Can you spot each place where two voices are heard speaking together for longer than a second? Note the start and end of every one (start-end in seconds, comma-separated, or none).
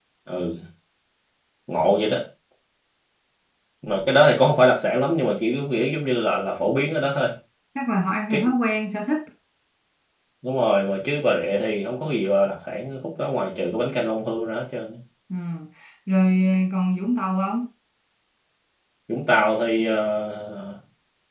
none